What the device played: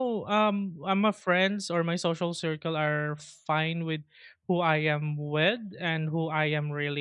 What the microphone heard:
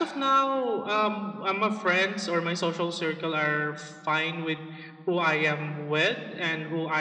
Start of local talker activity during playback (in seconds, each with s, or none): none